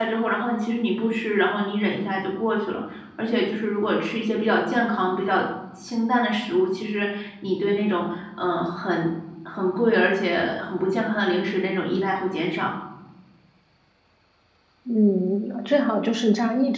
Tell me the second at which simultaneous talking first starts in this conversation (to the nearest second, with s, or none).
none